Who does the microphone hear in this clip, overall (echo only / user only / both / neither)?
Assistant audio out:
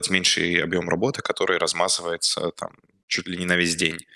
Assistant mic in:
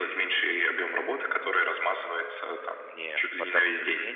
both